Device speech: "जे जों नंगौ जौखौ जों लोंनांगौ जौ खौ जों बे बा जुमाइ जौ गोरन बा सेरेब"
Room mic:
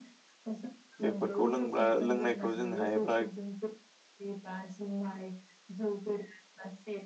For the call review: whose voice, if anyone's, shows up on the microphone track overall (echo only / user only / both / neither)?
both